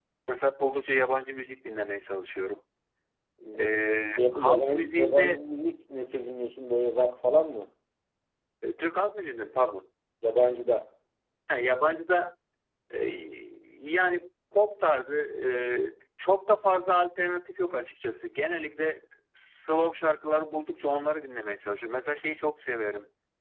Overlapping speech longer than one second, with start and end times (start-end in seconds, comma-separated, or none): 4.2-5.4